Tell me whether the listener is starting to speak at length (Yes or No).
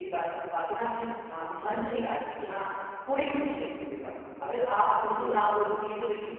No